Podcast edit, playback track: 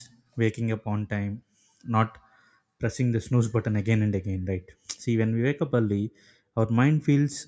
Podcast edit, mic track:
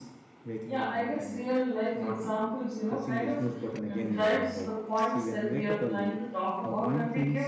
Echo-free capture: No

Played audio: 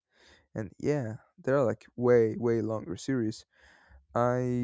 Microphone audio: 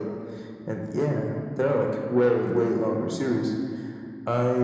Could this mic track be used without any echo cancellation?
No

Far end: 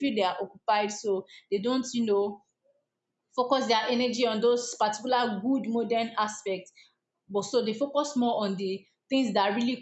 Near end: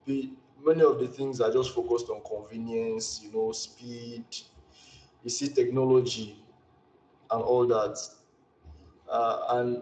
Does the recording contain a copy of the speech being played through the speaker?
No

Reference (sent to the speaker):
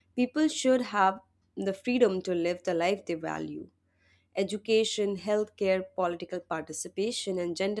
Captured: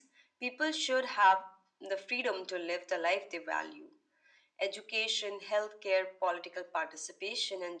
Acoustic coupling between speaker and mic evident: Yes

